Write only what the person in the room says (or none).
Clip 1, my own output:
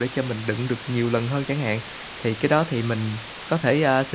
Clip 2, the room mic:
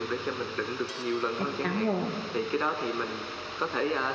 chắc chắn rồi.